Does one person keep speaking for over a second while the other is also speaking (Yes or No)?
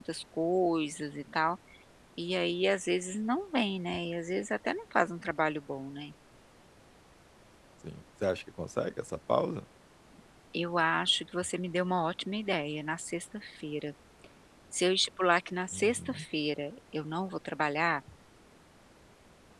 No